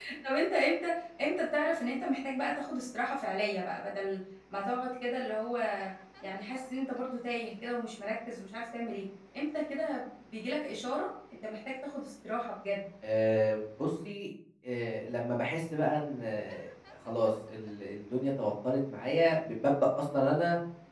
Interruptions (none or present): none